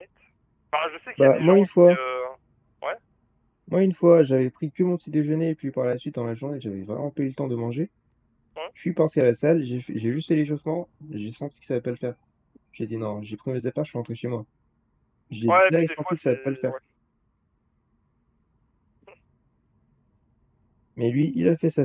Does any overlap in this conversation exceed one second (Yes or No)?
Yes